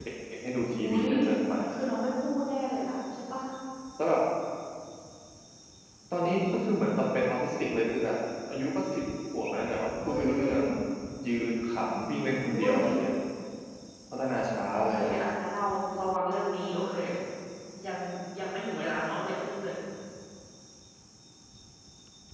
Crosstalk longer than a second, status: none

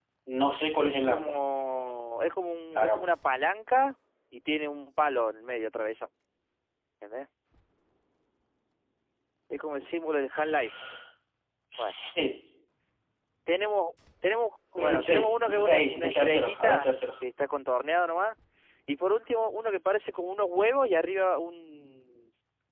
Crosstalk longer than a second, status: present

